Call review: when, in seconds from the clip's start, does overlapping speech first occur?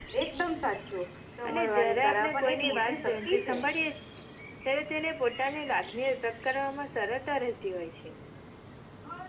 1.4 s

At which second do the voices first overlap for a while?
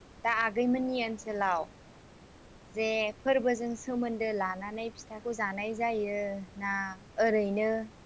none

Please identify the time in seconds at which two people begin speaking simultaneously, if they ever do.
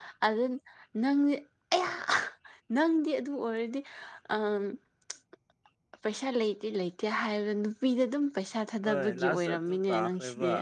8.8 s

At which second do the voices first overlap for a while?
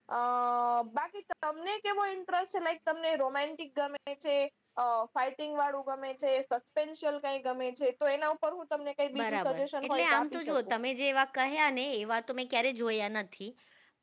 9.1 s

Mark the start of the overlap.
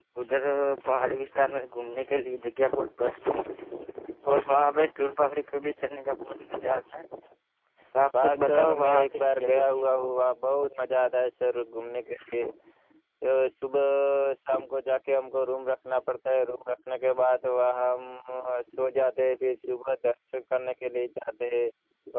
8.2 s

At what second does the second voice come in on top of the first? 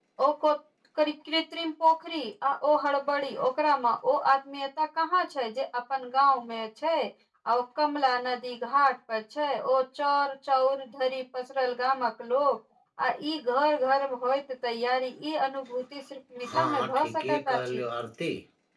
16.4 s

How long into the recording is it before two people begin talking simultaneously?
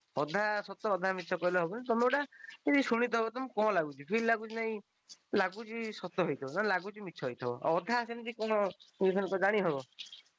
none

